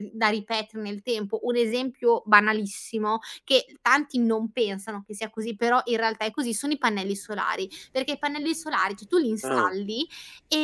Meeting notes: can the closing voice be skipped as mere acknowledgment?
Yes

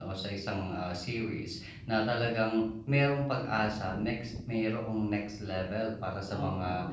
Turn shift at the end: No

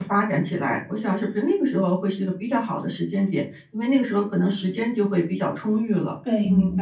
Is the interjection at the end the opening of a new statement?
Yes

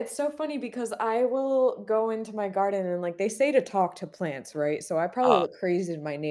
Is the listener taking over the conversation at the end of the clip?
No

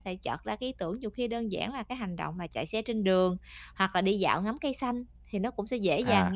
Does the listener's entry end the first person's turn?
No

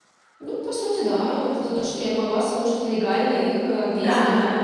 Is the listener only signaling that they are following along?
No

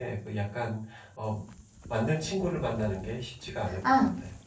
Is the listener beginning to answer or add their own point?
Yes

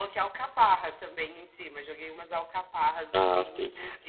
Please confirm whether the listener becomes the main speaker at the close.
Yes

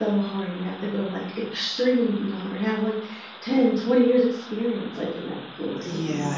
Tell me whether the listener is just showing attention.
No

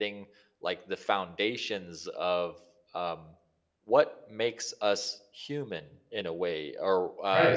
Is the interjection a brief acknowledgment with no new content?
Yes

